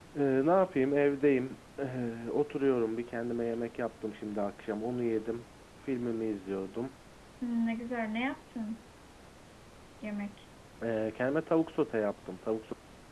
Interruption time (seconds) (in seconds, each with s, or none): none